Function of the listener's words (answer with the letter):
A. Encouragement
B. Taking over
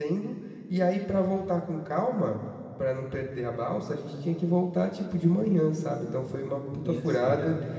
A